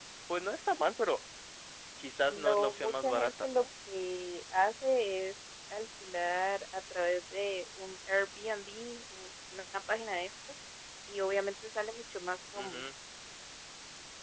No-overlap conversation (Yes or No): No